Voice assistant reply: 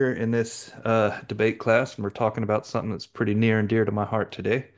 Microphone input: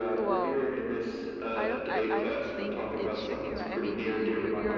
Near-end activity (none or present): present